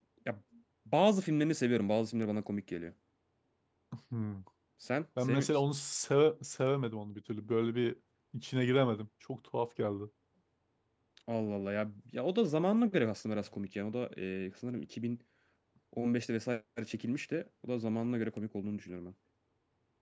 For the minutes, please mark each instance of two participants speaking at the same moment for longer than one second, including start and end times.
none

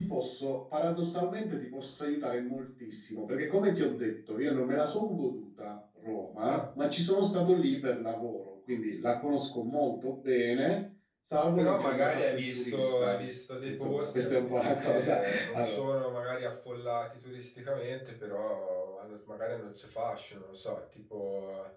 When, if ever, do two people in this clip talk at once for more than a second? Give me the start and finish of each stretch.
11.6-13.2, 13.7-15.8

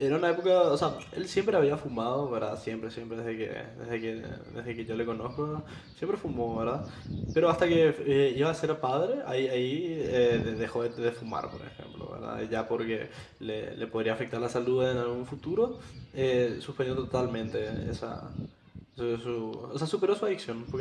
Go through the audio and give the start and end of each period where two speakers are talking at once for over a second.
none

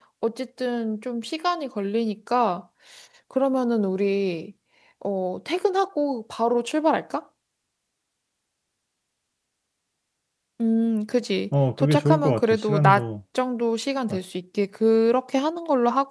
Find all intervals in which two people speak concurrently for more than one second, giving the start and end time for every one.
11.8-13.1

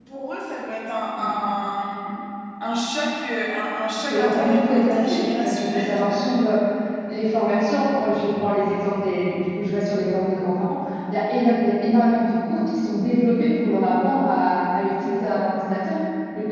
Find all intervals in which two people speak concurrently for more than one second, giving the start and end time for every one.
4.1-6.2

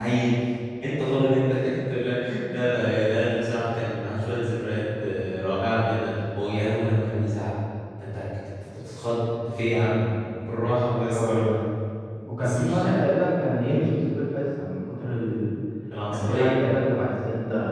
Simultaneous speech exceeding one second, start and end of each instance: none

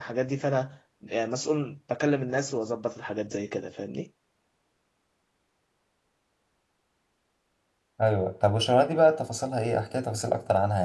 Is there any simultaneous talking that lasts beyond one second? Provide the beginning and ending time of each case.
none

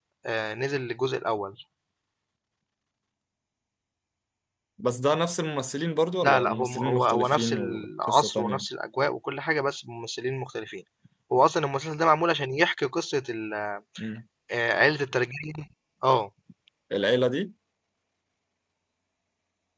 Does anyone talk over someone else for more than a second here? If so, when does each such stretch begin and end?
6.2-8.6

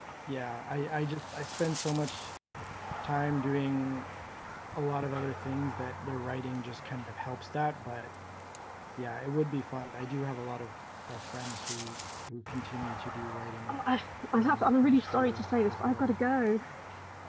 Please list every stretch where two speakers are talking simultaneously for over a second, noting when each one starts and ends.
14.4-16.1

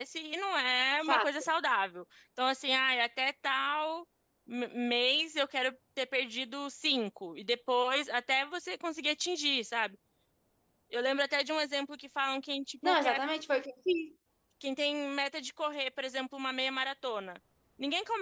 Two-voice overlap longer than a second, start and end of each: none

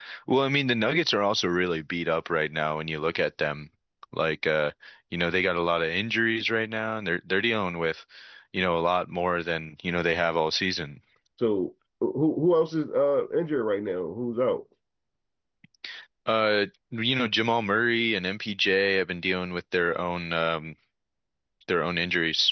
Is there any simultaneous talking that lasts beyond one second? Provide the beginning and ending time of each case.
none

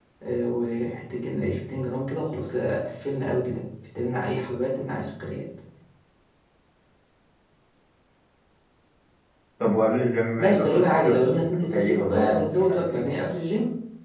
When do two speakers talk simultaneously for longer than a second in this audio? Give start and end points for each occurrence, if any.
10.4-13.1

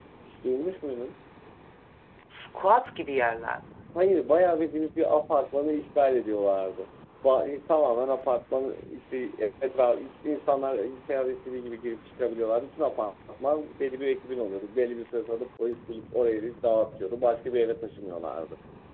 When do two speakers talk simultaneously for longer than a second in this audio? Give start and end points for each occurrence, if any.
none

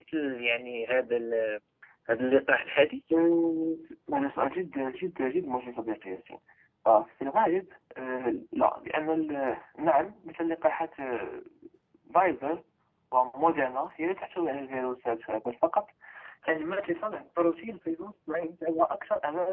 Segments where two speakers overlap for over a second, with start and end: none

